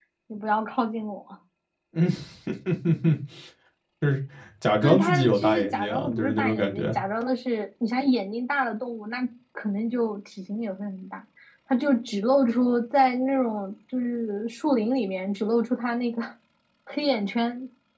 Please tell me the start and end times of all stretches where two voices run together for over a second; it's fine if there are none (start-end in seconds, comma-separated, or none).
4.8-7.0